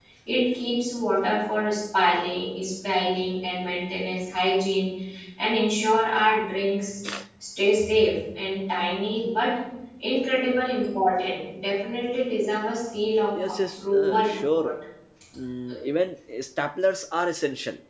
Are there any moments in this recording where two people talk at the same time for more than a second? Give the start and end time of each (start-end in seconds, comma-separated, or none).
13.5-14.7